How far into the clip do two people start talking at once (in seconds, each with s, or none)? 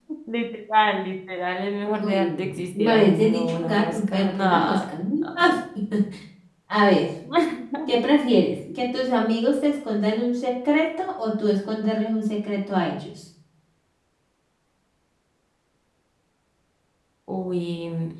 2.0 s